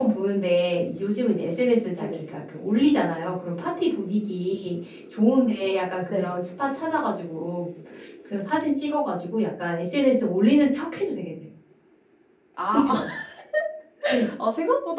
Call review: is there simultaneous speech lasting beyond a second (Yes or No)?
No